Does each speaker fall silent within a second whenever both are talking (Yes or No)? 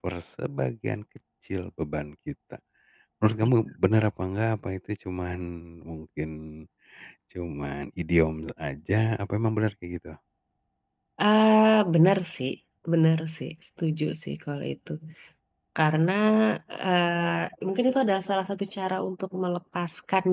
Yes